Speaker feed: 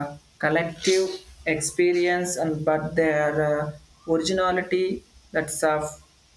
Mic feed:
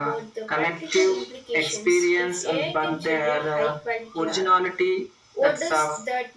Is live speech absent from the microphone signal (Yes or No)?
No